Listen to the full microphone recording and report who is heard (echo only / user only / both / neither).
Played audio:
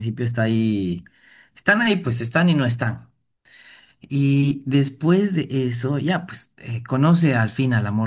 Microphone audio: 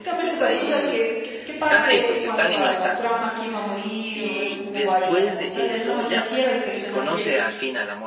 both